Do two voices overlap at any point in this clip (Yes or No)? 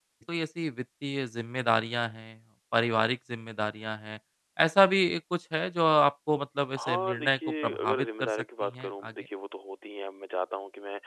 Yes